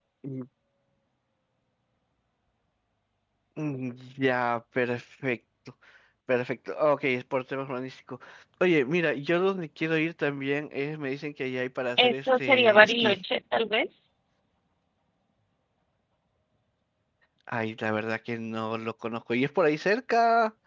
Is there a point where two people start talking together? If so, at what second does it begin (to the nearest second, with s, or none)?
12 s